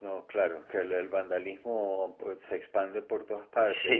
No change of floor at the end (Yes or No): Yes